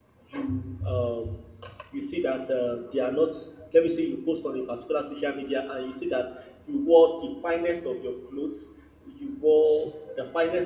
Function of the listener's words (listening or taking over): listening